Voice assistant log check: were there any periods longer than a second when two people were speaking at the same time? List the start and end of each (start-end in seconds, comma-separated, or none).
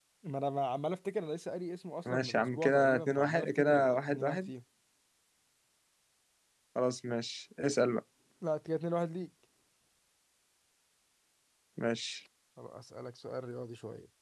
2.1-4.5